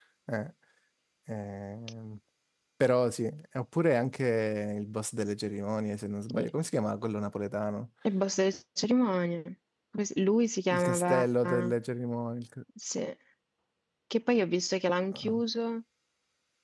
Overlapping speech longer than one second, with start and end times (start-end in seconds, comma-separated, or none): none